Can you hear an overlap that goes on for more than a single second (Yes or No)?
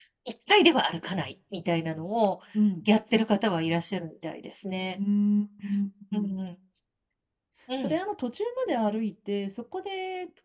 No